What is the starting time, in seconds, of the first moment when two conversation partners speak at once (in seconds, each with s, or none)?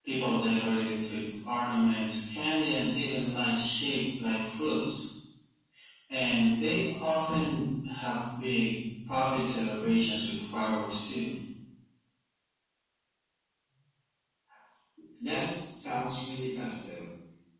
none